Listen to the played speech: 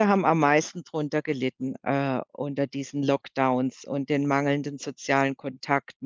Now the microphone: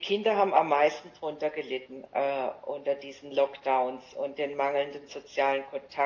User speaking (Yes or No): No